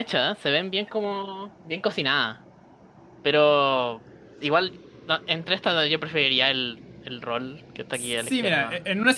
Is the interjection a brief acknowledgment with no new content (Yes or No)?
No